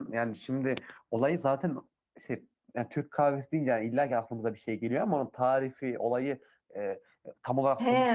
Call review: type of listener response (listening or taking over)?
taking over